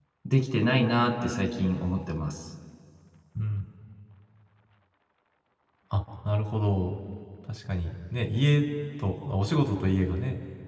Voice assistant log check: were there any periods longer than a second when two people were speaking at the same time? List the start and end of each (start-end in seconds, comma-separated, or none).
none